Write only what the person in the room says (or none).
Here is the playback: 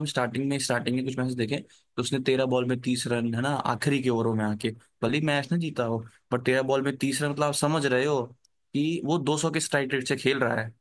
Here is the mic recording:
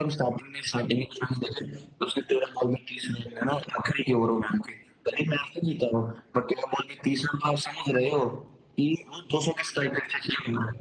none